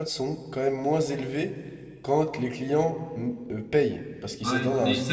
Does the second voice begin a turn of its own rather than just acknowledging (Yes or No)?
Yes